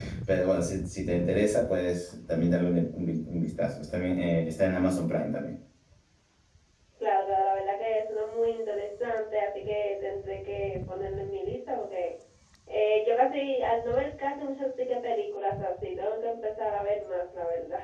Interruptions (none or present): none